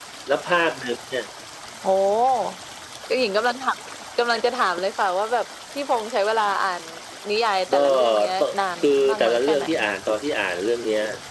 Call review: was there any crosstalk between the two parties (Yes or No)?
Yes